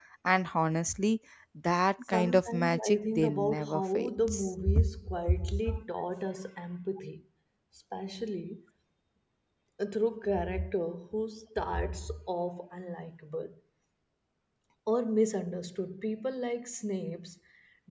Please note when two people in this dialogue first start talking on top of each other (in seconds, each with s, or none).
2.1 s